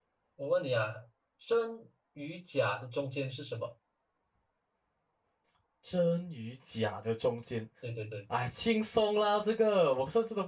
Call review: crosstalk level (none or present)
none